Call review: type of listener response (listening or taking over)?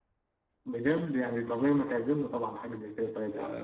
taking over